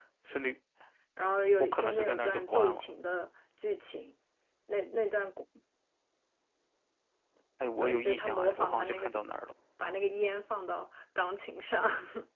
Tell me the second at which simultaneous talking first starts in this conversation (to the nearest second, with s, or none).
2 s